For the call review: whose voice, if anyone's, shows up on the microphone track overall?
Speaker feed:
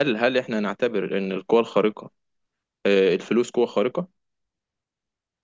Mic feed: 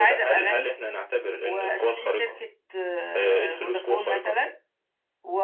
both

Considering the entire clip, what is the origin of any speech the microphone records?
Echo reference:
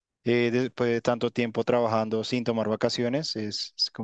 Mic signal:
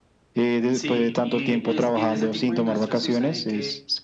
both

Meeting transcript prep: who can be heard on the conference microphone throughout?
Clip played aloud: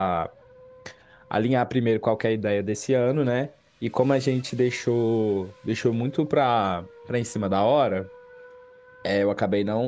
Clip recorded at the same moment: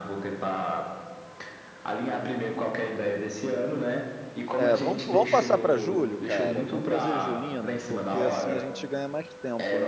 both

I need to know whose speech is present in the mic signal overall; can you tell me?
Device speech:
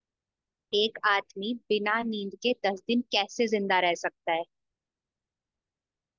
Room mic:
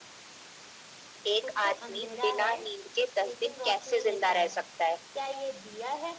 both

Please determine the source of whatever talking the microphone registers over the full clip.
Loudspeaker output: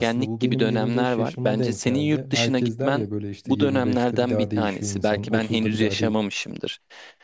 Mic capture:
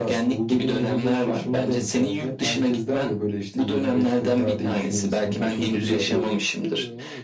both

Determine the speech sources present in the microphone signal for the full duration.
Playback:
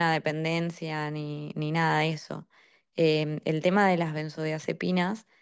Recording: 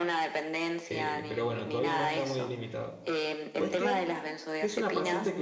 both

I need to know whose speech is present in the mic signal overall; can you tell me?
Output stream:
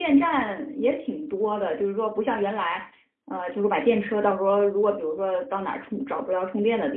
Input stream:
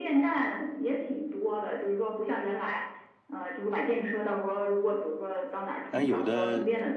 both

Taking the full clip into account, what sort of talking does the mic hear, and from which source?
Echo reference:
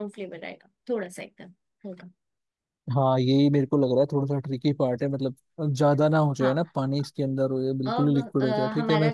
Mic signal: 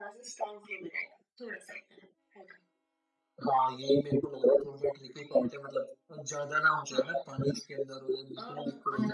echo only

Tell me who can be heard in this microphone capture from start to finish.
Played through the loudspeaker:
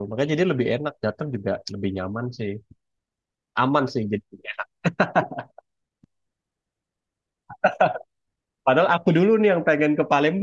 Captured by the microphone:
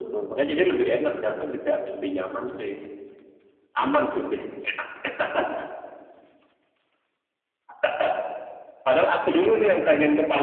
echo only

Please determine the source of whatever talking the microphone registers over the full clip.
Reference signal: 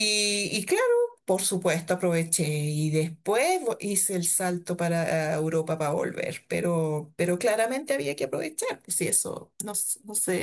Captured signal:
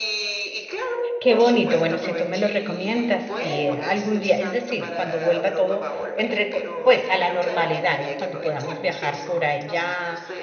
both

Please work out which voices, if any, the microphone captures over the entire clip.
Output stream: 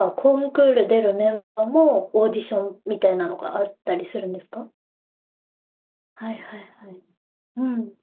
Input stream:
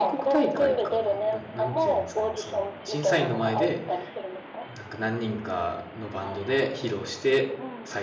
both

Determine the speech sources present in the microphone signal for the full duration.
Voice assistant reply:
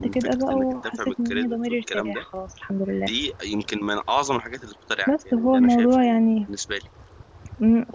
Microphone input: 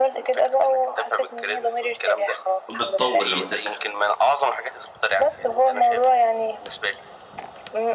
both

